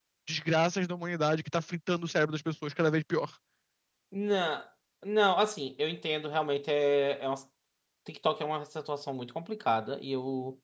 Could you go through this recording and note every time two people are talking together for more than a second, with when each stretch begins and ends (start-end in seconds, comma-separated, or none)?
none